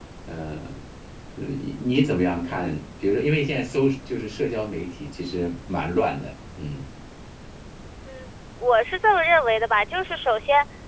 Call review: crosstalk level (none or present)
none